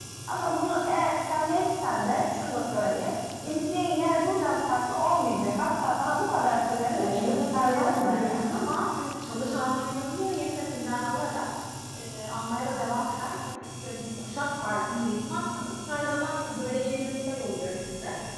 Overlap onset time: 7 s

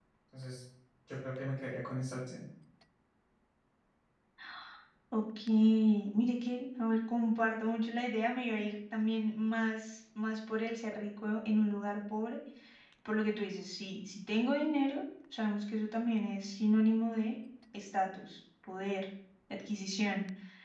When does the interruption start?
none

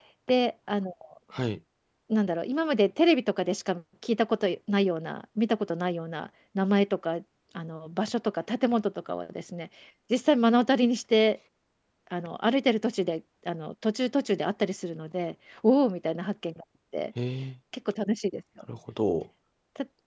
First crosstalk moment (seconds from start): none

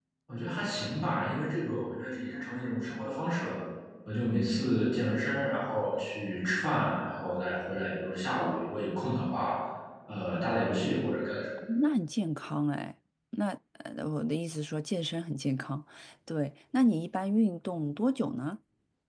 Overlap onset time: none

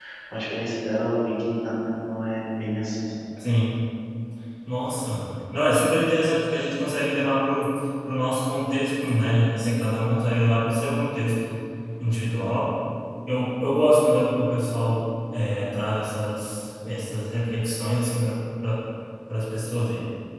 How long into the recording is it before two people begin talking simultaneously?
none

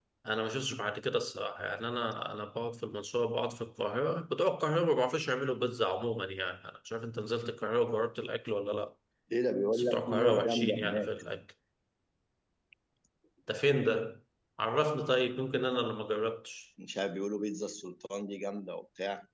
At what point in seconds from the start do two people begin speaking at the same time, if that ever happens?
10 s

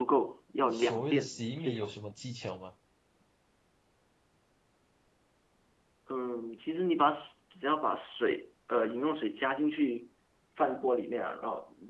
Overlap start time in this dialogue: 1 s

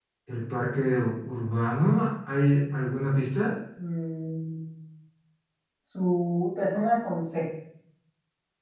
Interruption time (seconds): none

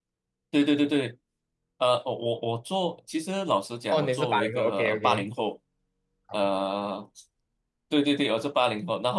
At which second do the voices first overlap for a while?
4 s

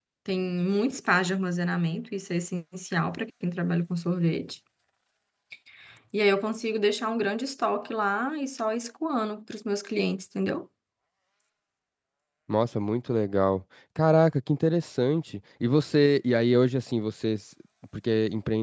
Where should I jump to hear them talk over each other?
none

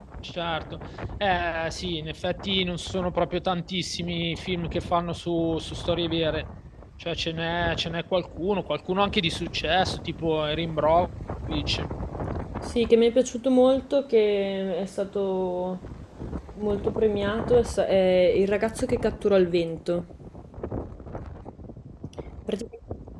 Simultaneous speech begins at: none

